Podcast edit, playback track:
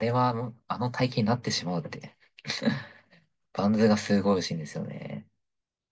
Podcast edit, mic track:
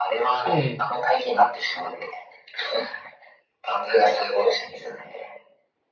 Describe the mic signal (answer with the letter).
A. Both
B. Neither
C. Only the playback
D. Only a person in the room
A